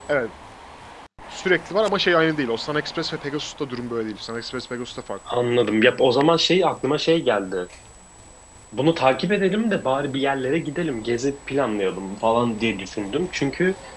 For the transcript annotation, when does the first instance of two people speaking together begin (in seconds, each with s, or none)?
none